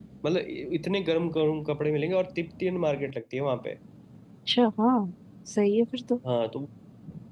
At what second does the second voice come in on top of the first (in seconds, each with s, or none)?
none